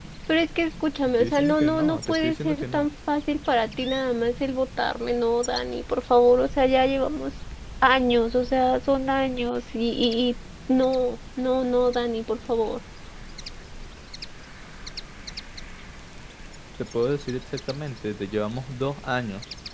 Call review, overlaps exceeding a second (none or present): present